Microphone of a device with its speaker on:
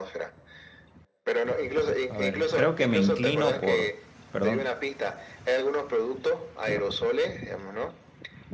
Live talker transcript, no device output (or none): a ver, creo que me inclino por, perdón,